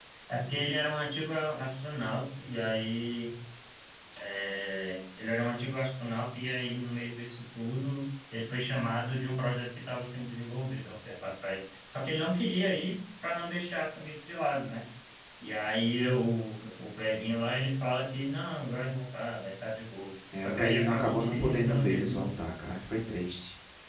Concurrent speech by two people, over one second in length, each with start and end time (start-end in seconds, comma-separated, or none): 20.4-22.3